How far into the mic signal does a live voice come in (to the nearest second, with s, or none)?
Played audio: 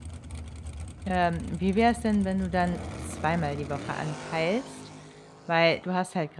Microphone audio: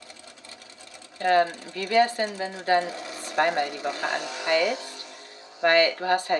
none